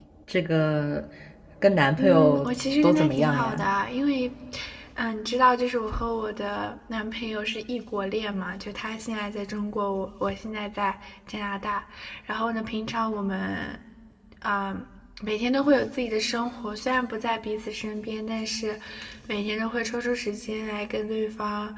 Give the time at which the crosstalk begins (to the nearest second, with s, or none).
2 s